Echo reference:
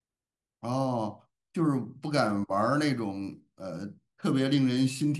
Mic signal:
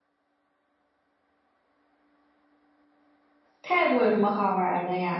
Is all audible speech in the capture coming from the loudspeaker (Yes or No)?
No